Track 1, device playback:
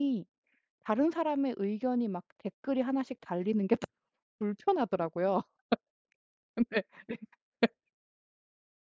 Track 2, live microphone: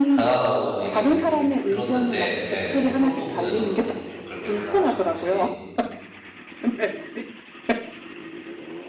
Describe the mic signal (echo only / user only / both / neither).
both